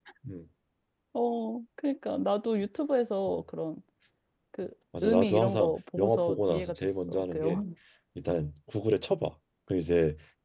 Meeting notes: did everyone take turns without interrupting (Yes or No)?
No